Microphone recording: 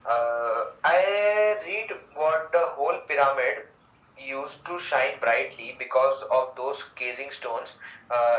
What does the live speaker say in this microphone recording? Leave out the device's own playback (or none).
none